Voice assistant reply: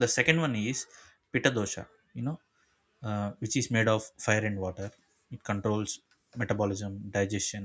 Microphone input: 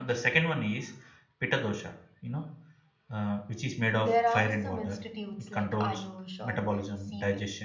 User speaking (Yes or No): Yes